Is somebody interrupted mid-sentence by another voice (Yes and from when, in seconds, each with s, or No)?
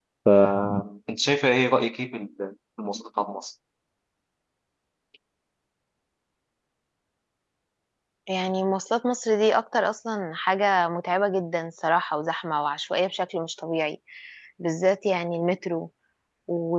No